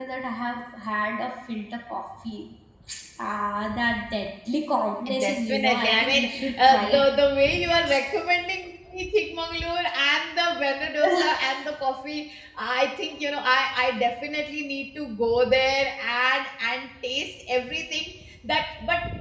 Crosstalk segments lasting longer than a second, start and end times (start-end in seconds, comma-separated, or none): 5.2-7.0